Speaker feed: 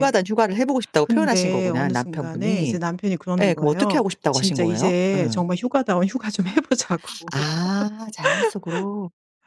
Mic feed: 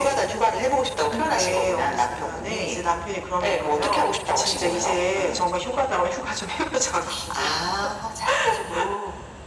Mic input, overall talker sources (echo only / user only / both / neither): echo only